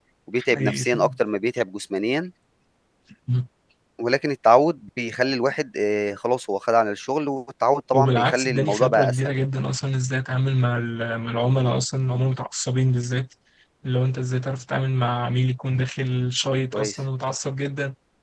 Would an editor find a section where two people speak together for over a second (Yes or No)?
Yes